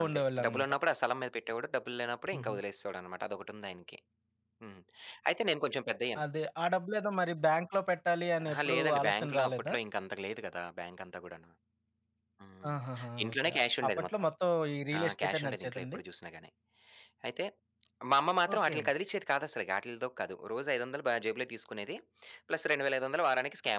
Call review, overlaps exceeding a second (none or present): present